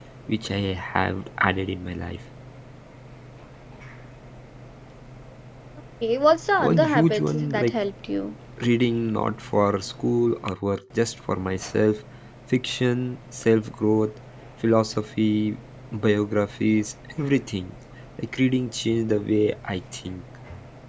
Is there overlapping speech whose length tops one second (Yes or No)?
Yes